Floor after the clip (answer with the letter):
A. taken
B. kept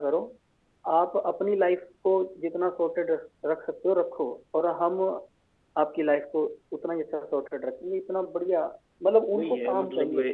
A